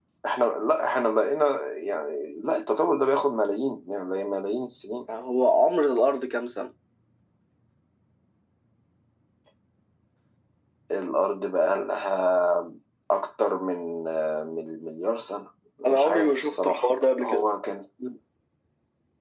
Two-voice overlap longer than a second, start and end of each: 15.9-17.4

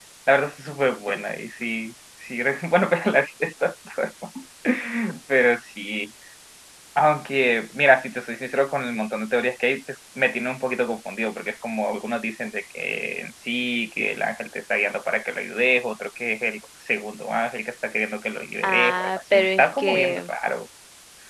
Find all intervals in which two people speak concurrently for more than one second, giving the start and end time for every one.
18.6-20.3

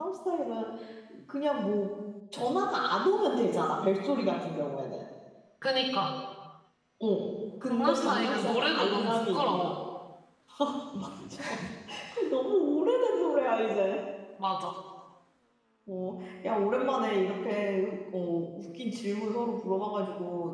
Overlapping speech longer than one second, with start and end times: 7.6-9.7

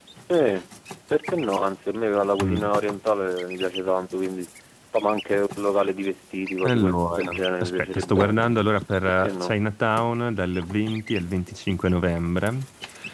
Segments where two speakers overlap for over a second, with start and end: 6.6-8.4

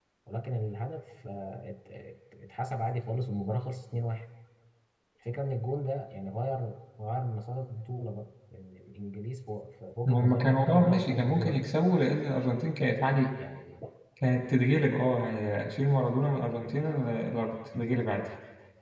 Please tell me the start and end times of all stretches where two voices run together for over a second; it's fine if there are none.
10.1-11.7

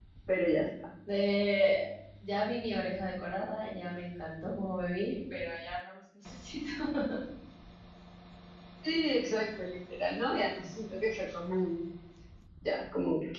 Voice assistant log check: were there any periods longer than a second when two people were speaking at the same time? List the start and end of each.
none

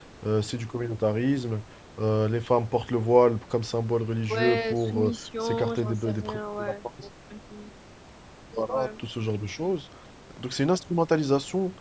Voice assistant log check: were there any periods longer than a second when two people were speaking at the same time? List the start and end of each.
4.3-6.7

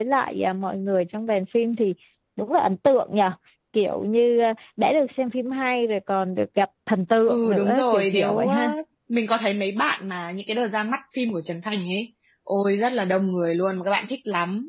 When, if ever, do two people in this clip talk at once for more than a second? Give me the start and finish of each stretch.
7.3-8.7

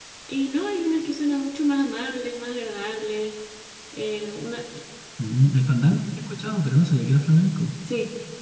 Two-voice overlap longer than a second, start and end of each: none

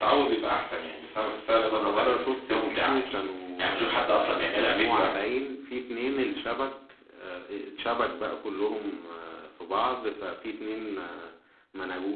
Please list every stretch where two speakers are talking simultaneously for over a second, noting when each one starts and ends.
1.5-3.1, 3.6-5.3

